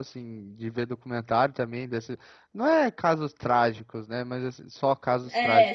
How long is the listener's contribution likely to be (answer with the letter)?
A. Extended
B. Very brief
B